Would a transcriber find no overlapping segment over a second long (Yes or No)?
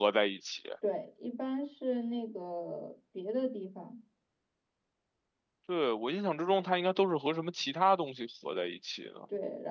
Yes